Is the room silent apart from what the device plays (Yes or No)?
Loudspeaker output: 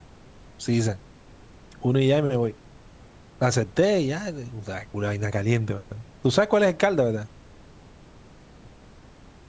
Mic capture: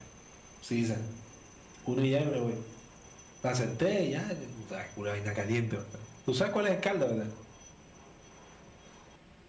Yes